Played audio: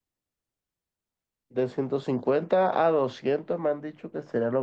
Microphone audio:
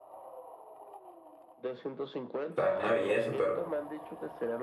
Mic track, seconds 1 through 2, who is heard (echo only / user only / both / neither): echo only